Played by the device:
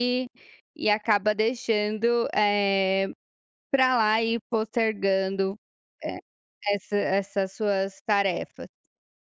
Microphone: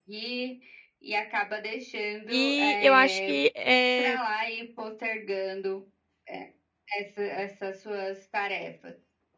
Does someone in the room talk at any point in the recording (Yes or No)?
Yes